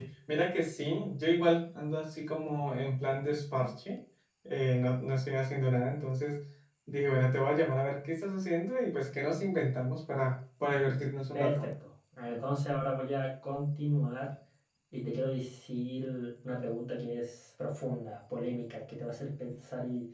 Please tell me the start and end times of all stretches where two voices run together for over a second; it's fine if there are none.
none

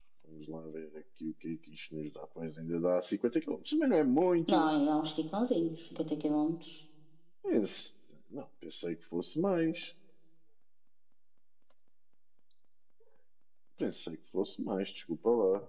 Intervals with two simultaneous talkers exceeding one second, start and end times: none

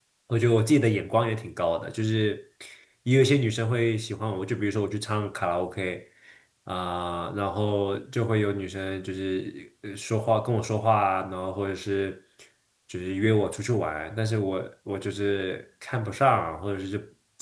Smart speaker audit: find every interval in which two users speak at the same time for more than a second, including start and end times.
none

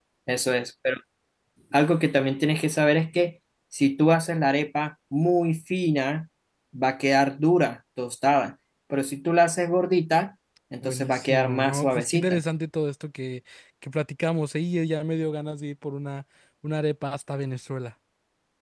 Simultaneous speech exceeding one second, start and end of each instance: 10.8-12.4

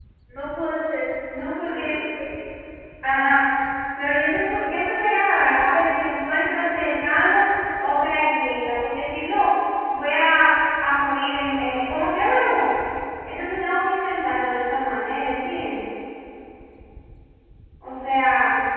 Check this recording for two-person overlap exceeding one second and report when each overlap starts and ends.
none

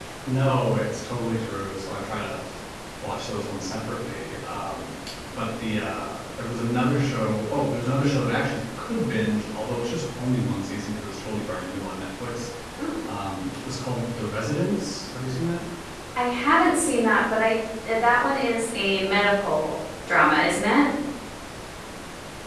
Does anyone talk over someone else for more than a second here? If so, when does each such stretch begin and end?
none

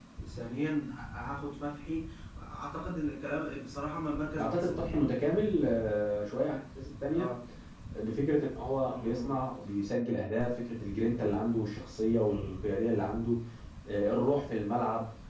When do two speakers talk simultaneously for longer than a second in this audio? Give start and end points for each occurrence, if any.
none

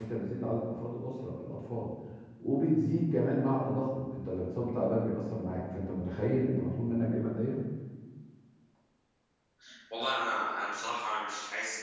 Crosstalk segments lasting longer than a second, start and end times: none

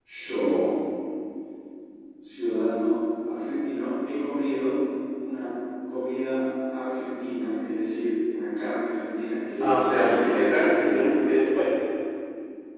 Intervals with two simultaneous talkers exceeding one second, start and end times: 9.6-11.3

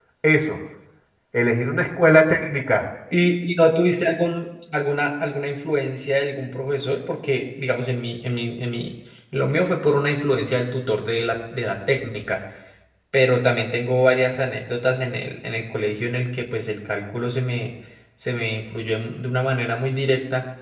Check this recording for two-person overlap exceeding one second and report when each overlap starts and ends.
none

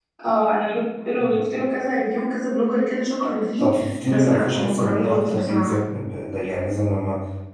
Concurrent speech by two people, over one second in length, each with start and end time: 4.1-5.8

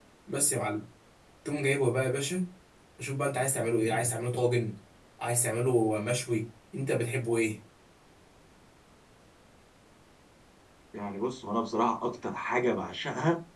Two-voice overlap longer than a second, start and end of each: none

